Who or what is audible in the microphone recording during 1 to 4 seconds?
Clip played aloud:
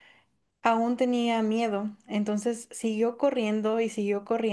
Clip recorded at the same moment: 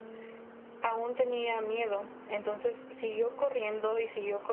echo only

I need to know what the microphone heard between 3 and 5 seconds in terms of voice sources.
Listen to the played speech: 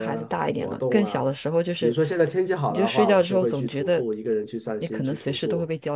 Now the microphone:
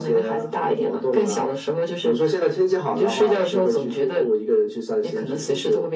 echo only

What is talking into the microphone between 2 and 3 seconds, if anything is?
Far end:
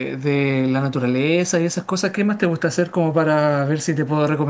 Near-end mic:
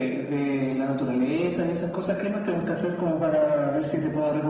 echo only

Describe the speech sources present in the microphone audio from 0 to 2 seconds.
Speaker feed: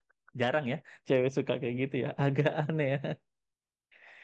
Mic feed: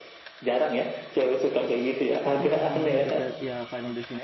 echo only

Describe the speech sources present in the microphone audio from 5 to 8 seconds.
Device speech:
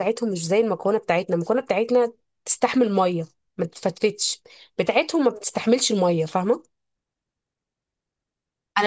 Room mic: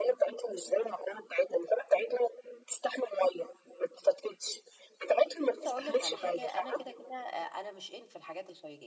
both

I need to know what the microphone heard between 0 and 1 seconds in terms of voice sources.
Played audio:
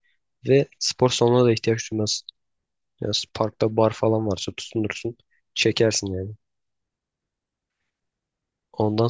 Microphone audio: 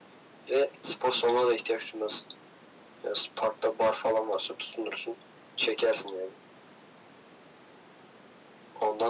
echo only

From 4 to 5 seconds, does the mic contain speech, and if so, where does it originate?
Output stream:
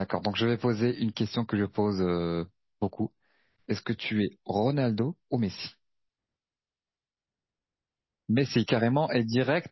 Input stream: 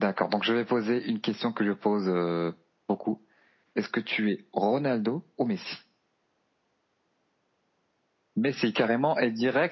echo only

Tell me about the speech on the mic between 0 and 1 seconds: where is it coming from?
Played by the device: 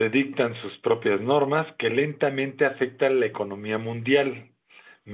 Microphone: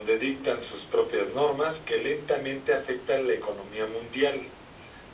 echo only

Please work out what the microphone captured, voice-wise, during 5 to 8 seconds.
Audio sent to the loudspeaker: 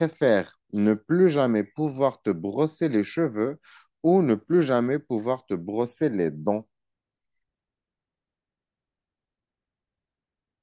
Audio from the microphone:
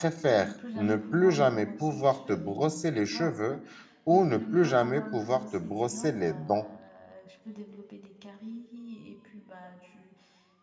both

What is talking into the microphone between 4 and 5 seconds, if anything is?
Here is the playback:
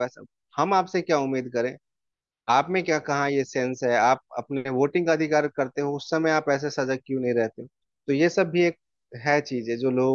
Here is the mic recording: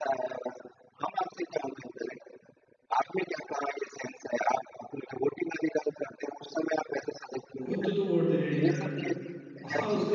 echo only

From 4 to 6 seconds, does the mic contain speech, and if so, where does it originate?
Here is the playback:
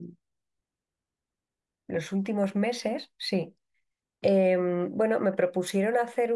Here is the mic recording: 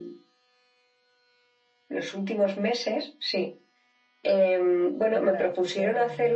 both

